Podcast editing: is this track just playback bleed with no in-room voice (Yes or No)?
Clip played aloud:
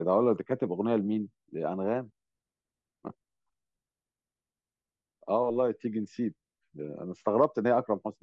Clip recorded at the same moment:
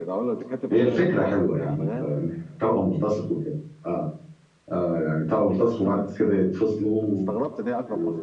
No